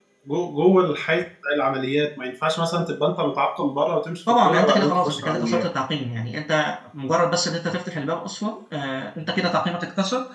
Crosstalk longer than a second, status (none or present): present